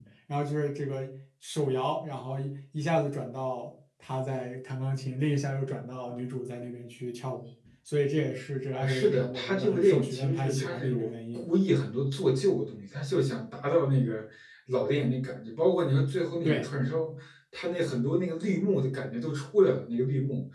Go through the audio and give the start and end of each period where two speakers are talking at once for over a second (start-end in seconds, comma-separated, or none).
8.8-11.4